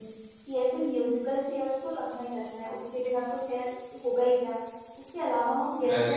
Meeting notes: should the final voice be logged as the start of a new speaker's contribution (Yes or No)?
No